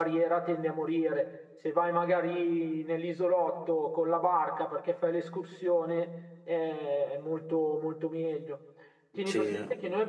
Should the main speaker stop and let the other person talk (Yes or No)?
No